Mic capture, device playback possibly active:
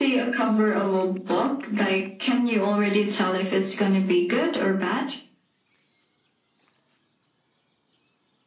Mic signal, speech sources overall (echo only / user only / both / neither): echo only